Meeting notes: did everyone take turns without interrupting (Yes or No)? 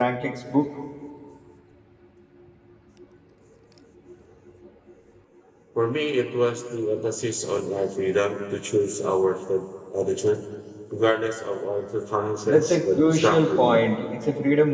No